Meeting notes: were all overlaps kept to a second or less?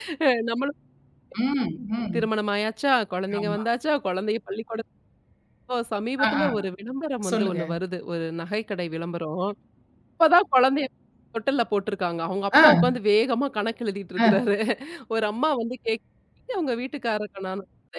Yes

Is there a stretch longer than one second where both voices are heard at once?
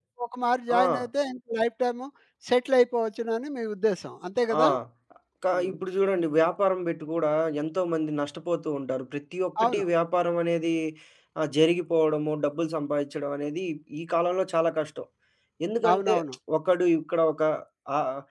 No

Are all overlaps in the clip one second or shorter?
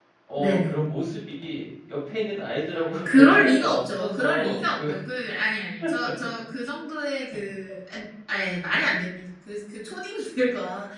No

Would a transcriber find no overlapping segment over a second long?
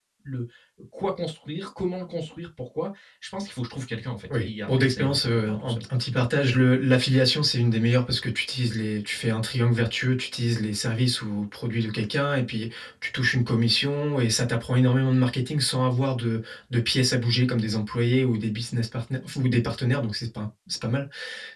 No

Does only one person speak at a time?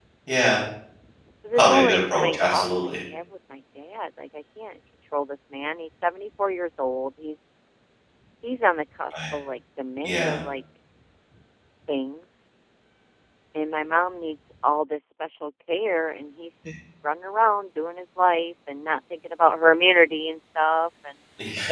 No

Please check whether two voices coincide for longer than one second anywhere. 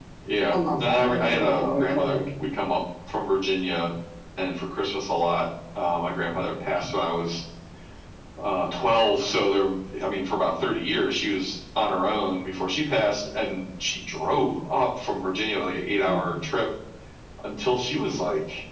Yes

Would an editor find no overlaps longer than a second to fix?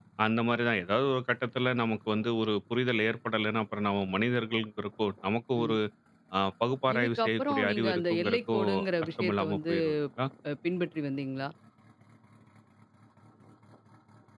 No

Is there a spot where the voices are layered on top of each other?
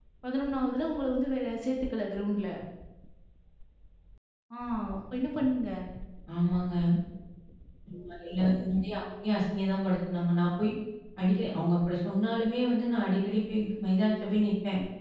No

